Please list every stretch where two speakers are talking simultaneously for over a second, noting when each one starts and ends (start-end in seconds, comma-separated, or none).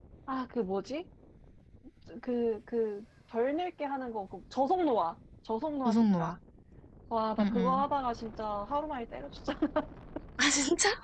none